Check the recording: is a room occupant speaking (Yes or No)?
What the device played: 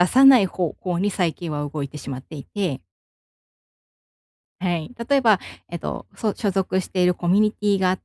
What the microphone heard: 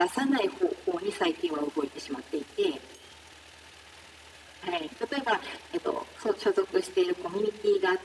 No